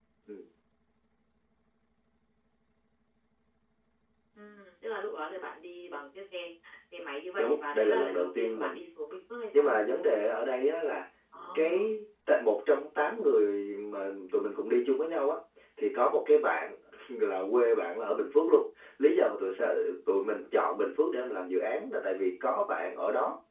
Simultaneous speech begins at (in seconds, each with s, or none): 7.4 s